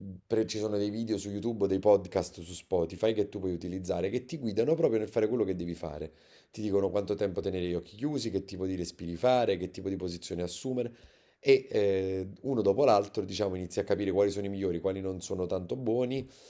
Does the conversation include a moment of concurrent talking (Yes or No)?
No